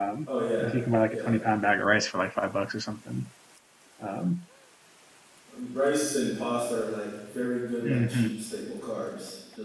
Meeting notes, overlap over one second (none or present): none